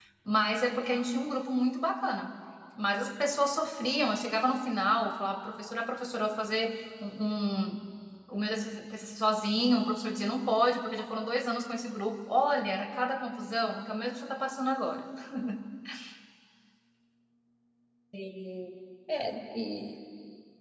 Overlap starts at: none

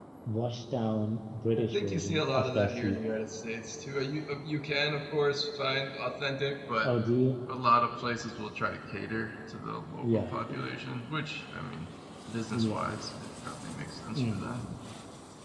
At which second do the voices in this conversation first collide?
2 s

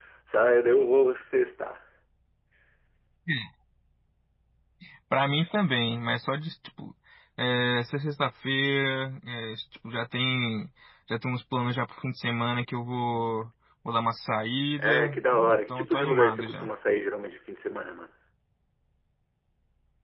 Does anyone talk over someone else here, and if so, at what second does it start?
15 s

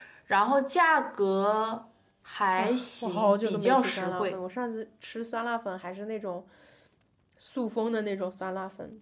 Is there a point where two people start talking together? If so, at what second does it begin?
3 s

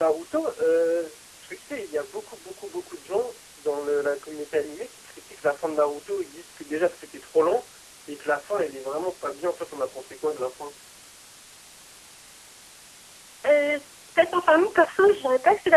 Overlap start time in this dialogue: none

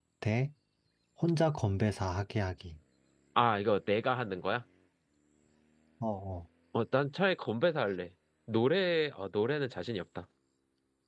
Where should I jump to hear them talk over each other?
none

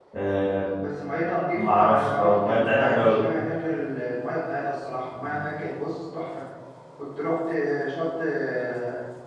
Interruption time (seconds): 2 s

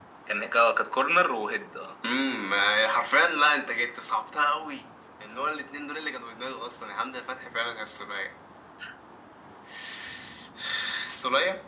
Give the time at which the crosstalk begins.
none

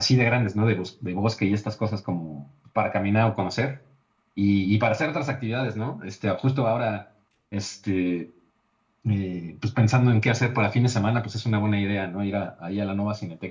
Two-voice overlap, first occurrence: none

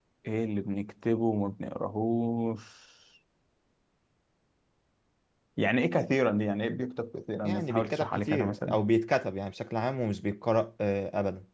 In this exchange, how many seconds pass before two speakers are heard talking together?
7 s

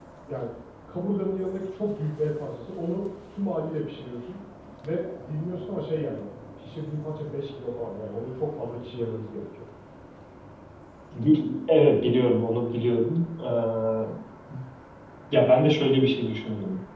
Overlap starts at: none

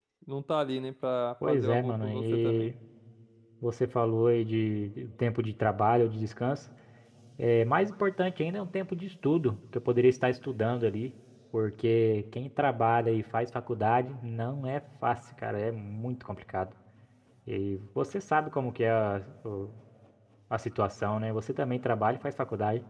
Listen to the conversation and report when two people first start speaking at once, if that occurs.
1 s

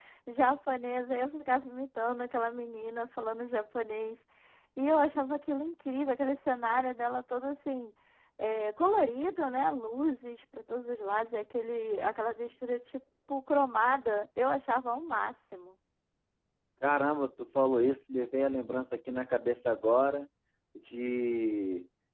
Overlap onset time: none

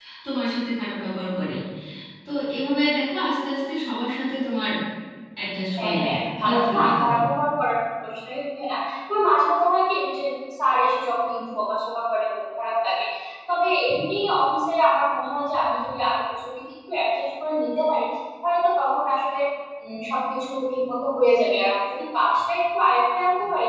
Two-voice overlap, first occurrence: 6 s

